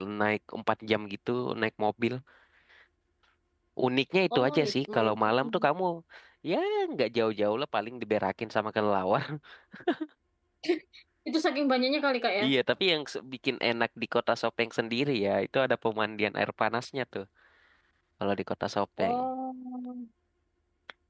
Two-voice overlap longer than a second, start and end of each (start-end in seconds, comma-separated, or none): 4.4-5.6